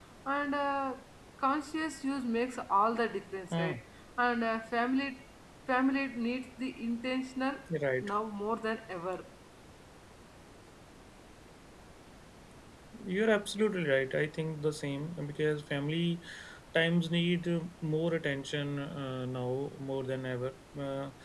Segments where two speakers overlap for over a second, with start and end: none

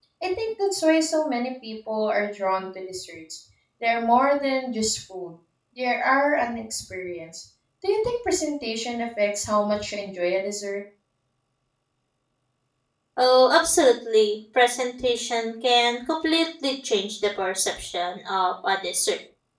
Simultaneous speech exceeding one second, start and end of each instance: none

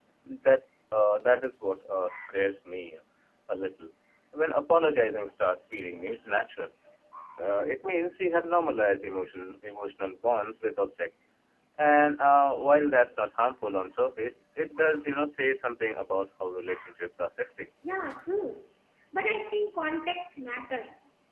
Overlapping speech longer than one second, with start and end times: none

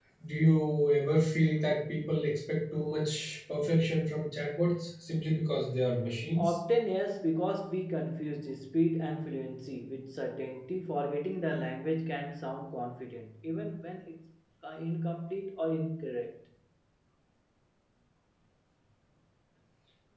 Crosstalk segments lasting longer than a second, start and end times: none

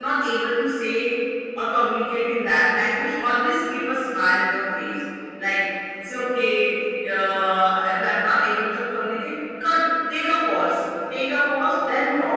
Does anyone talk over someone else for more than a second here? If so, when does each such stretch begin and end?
none

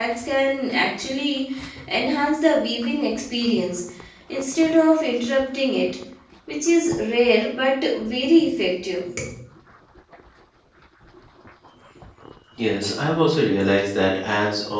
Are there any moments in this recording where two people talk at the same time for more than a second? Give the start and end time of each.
none

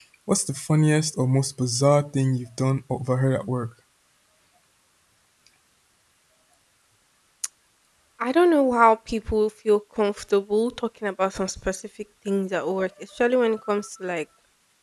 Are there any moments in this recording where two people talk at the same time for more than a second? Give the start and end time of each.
none

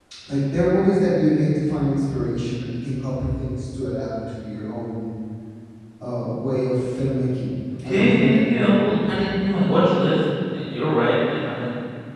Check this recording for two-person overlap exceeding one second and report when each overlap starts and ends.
7.8-9.2

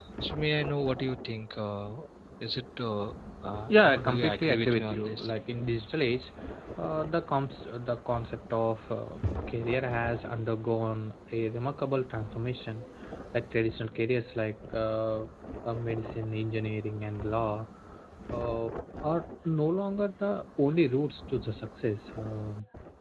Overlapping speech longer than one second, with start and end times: 3.7-5.3

